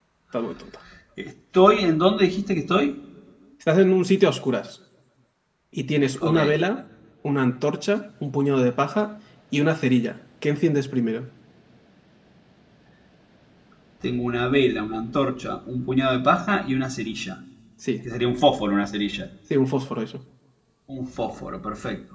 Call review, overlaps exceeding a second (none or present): none